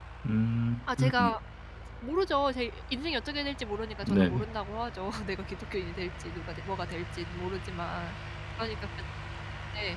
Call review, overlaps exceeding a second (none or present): none